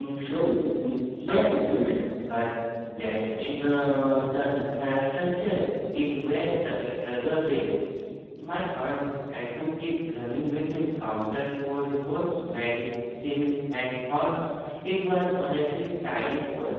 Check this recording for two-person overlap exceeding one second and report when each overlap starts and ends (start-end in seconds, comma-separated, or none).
none